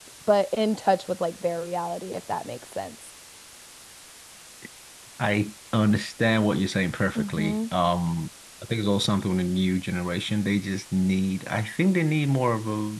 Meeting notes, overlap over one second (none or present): none